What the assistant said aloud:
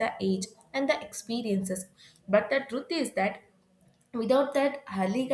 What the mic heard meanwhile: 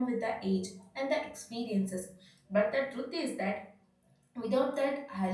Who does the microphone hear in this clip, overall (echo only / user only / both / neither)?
echo only